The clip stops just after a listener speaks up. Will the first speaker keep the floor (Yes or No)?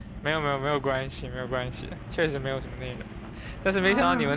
Yes